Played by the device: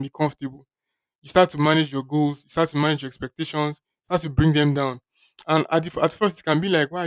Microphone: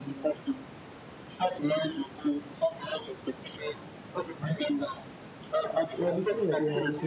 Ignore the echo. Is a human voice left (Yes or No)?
Yes